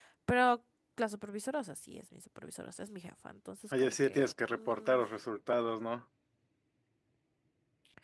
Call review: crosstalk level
present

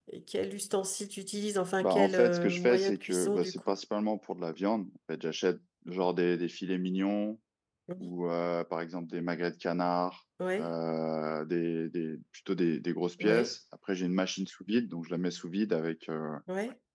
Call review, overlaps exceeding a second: present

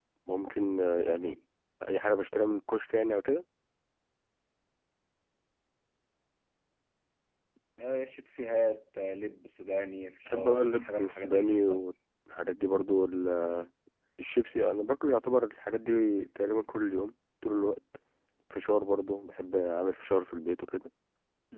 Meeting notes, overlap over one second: present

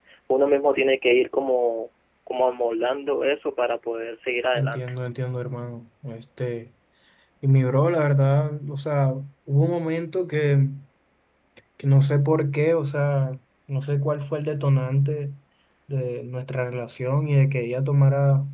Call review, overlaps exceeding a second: none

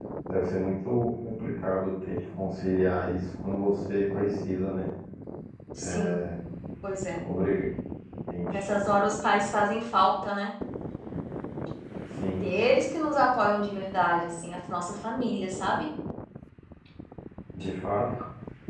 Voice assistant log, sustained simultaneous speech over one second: none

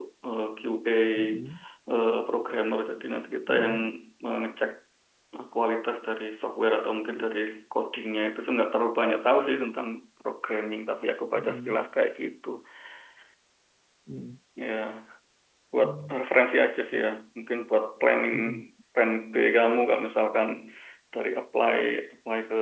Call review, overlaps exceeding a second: none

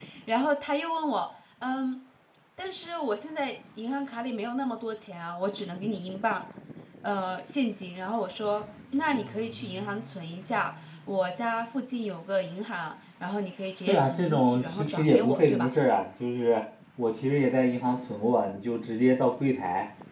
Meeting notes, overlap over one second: present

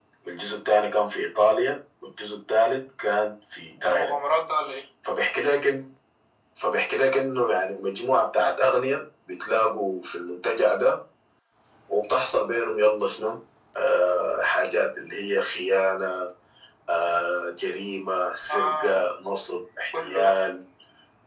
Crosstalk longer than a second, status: none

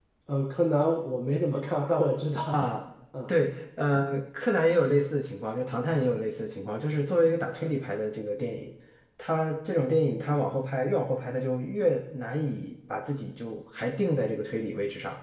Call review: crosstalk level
none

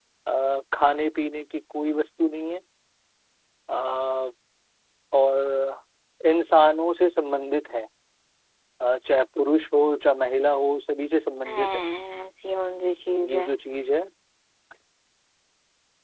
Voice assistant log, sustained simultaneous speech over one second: none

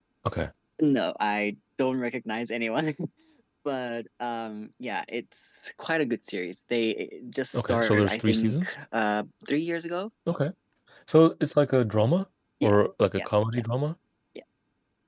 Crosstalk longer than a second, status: present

